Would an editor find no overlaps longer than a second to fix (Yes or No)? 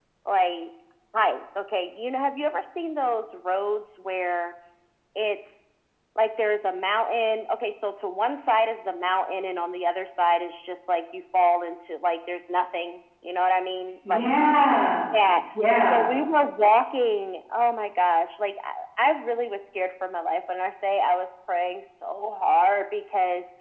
Yes